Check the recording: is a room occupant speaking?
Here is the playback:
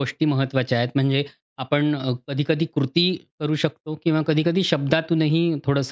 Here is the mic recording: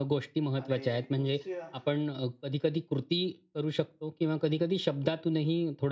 Yes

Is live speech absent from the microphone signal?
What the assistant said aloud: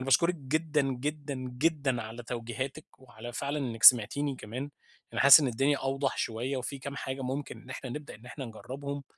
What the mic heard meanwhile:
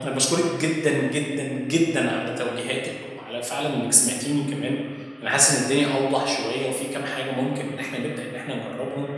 Yes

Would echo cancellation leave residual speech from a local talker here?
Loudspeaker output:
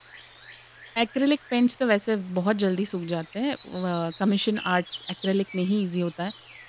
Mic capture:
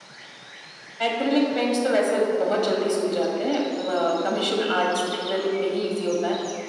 No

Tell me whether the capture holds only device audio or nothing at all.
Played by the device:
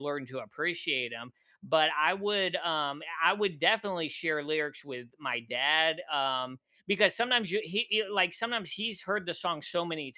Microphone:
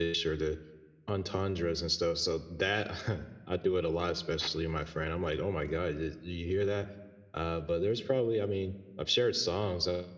No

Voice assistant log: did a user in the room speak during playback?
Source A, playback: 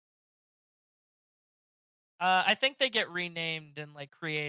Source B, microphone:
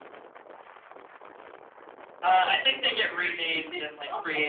Yes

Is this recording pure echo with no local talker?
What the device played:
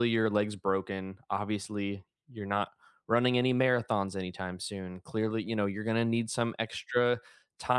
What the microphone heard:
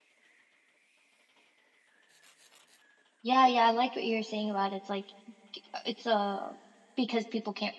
No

